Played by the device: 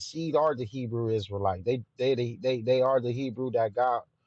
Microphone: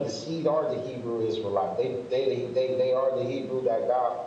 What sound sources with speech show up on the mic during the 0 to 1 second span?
echo only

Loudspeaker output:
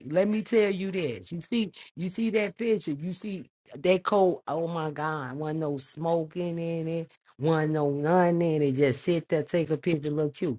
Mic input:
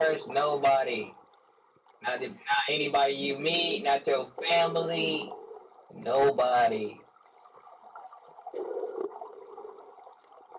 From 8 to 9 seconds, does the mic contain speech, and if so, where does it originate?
neither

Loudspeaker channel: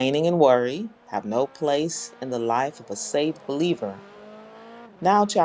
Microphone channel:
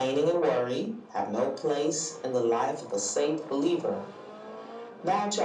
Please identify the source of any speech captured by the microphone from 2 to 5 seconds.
echo only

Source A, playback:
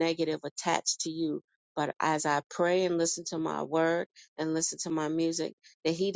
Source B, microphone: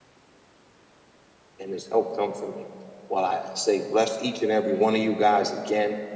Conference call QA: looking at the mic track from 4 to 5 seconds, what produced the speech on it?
user only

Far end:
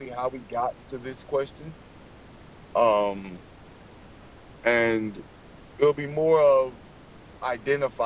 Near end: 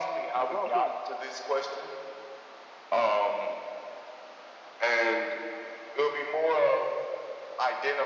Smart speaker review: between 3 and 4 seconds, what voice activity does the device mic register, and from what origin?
echo only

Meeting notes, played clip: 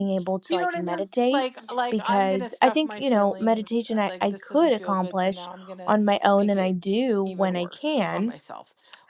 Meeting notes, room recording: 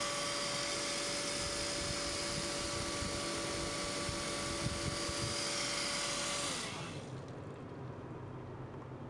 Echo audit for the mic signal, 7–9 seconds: neither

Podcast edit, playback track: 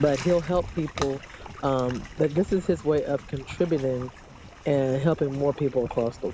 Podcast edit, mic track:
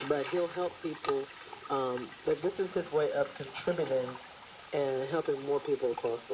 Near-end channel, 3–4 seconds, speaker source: echo only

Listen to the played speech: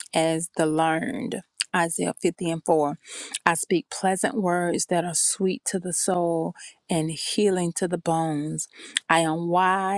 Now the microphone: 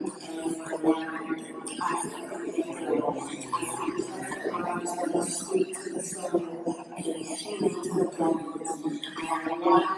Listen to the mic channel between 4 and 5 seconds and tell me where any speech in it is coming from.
both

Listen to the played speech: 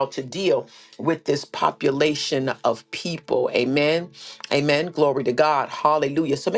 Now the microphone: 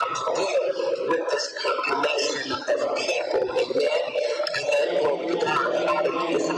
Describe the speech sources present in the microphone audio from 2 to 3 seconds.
echo only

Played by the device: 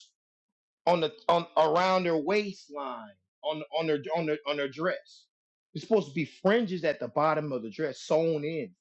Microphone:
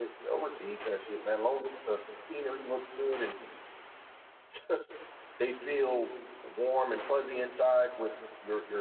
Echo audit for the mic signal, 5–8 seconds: user only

